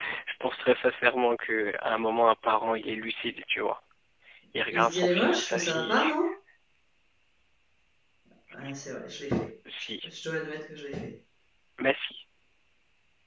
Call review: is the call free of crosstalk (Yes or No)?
No